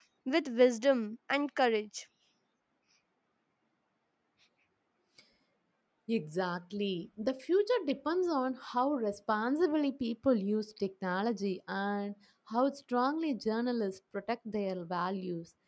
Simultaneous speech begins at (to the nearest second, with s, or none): none